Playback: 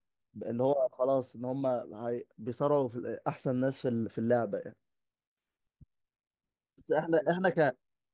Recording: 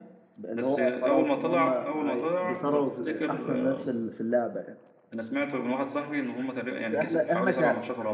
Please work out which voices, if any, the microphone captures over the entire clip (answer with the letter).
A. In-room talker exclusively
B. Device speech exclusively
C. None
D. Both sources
D